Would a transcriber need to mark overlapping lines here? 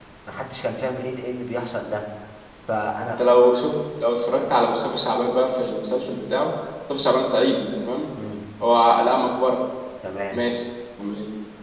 No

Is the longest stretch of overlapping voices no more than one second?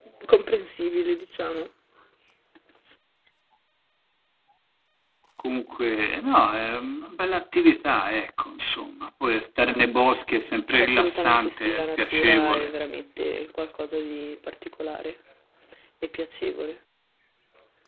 No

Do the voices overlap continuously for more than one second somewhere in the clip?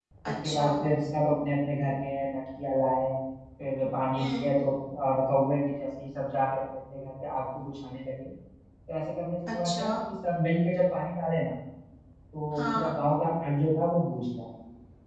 No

